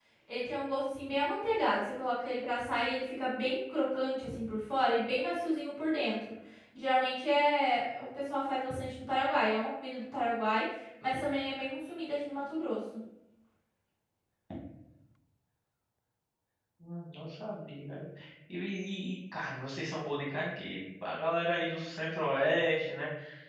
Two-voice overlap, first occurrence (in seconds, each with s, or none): none